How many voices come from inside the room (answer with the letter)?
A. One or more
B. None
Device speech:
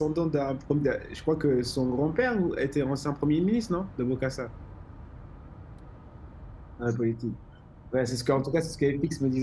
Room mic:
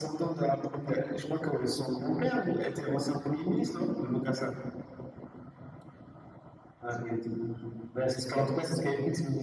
B